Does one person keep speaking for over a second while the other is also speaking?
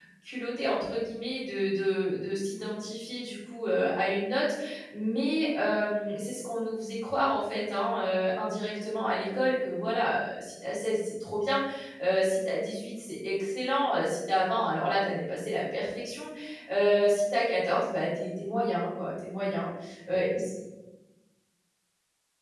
No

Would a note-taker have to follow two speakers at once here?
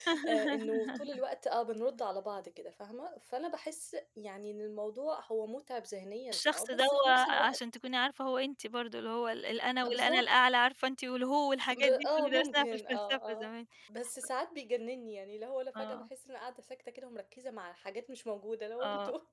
Yes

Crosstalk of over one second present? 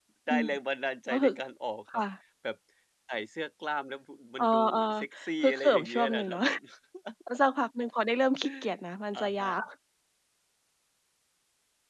Yes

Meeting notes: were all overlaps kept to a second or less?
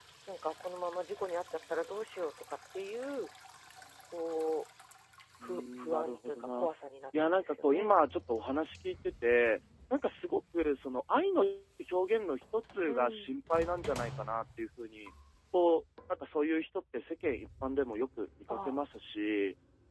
No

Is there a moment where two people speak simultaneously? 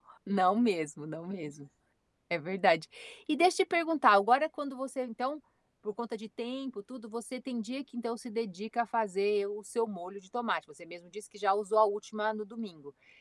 No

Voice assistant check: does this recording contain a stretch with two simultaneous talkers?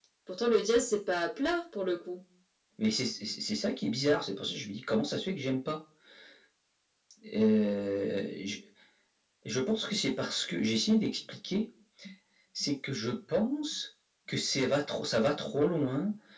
No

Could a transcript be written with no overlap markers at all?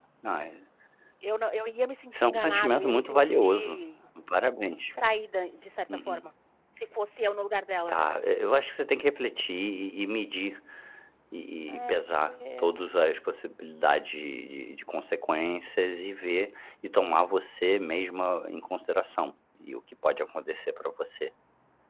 No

